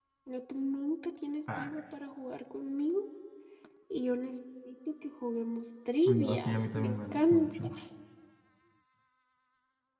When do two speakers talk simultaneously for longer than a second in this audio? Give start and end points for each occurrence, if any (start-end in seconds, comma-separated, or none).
6.1-7.5